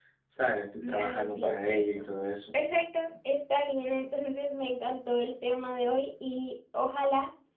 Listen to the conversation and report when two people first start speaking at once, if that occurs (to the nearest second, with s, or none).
1 s